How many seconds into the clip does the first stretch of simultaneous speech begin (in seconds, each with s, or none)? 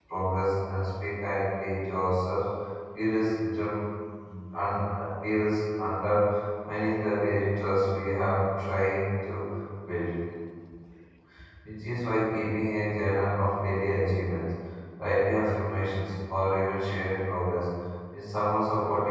none